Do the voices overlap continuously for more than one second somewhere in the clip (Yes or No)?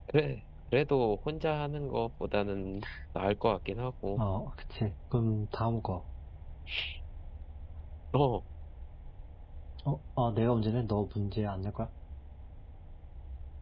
No